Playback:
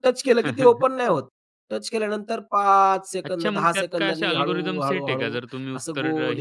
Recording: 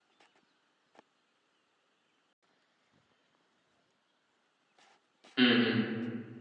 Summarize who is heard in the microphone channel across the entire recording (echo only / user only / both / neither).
user only